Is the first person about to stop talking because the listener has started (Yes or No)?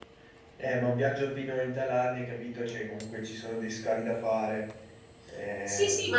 Yes